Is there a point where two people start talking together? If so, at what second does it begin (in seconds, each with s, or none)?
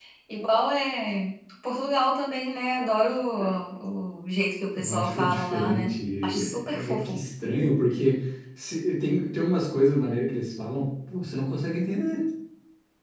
4.7 s